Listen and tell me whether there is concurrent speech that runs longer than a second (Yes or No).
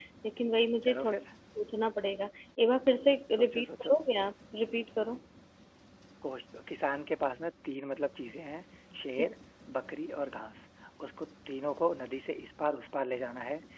No